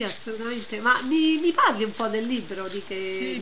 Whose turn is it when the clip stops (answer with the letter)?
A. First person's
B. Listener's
B